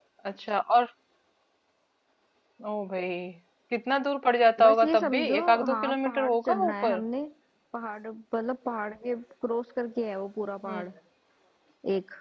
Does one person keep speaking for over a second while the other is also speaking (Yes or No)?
Yes